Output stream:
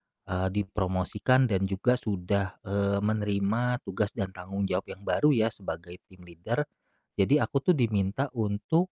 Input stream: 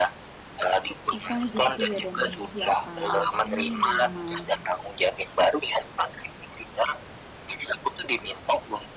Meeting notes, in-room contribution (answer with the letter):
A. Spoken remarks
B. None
A